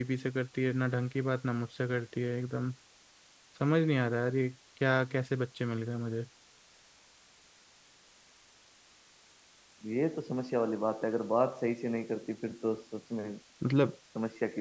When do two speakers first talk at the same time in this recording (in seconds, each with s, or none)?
none